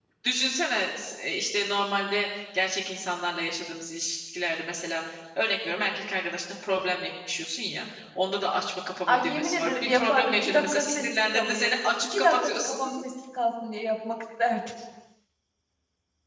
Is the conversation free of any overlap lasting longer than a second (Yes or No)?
No